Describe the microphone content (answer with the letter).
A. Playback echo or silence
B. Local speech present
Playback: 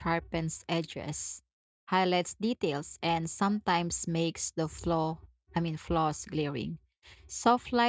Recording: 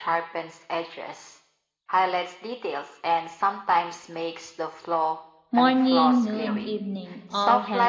B